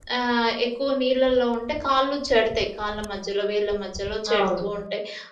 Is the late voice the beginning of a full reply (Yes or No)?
No